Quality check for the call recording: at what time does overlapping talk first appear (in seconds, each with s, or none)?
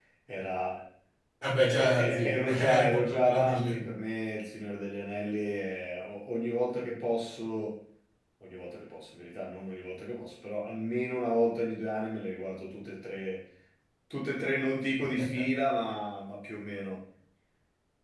1.6 s